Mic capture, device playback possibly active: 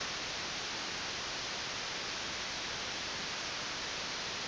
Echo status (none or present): none